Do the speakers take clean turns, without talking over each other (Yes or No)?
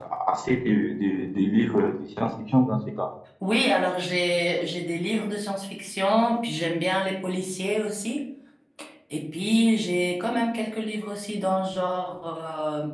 Yes